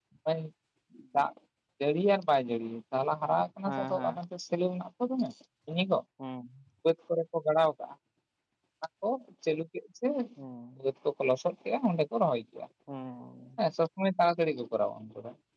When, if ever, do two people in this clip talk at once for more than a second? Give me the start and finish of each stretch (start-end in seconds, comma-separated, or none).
none